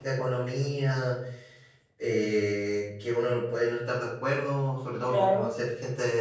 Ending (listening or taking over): listening